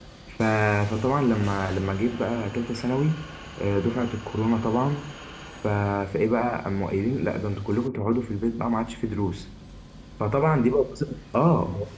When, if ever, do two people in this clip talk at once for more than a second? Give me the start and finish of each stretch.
none

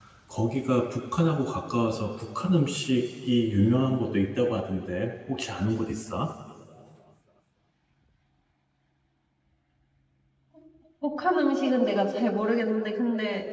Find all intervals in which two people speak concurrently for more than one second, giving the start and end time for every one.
none

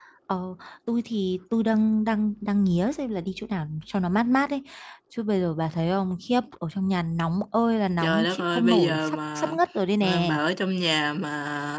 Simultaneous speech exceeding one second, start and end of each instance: 8.0-9.5

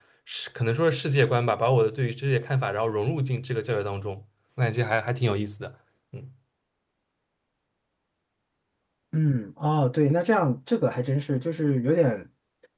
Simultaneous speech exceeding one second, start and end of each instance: none

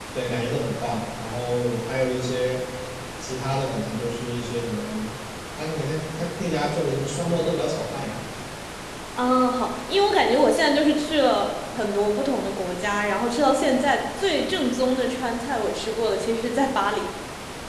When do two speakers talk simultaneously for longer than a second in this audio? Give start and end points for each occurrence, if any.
none

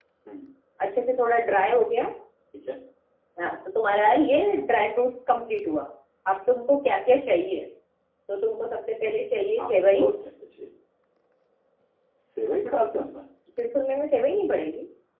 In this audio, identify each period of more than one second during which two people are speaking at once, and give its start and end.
none

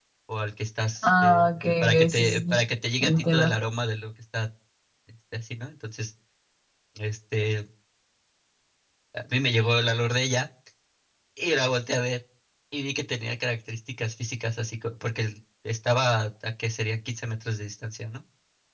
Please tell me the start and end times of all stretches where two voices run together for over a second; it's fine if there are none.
1.0-2.5

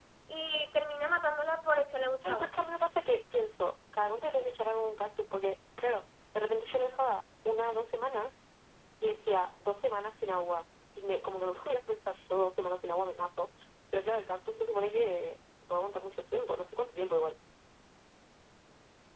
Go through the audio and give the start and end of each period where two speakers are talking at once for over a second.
none

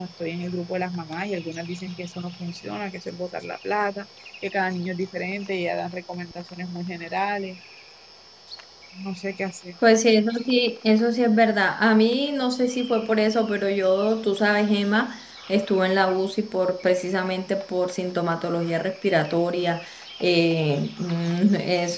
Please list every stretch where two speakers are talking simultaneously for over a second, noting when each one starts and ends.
none

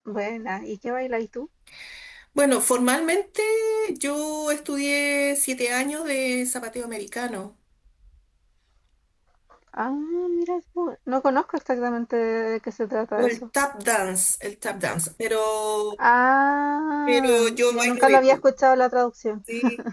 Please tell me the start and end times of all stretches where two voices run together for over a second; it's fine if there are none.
17.1-18.4

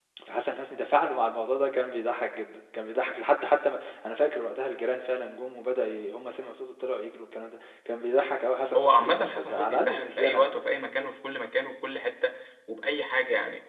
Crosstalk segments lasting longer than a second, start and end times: 8.8-10.6

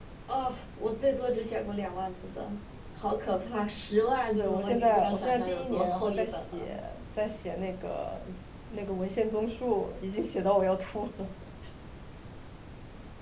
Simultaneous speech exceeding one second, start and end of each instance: 4.4-6.7

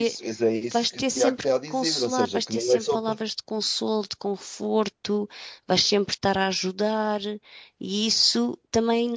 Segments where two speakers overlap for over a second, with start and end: 0.7-3.2

